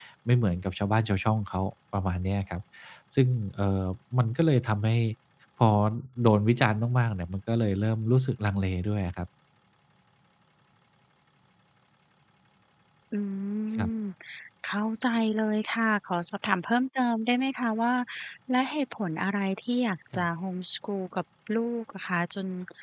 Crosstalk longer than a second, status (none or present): none